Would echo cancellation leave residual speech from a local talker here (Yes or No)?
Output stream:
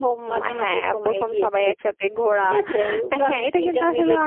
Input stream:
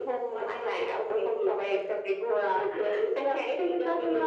No